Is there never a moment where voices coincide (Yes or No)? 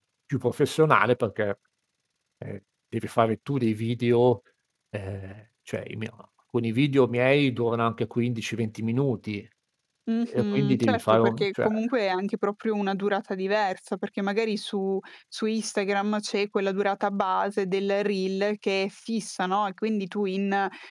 No